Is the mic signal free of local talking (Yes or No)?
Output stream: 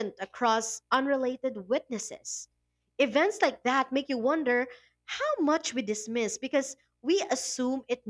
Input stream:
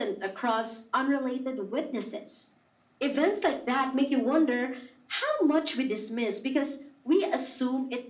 Yes